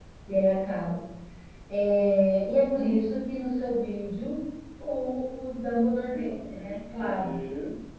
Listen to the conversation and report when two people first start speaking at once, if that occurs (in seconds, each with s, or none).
6.1 s